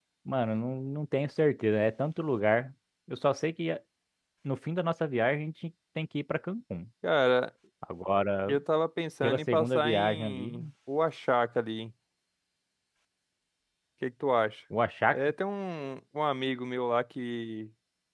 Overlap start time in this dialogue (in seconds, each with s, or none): 9.2 s